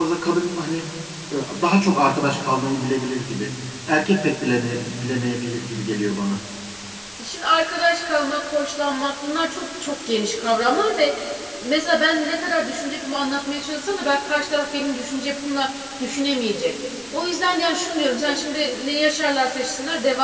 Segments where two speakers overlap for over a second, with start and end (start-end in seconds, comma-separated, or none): none